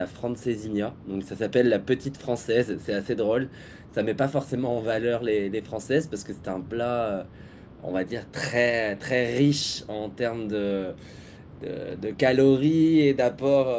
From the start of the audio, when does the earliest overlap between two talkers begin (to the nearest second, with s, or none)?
none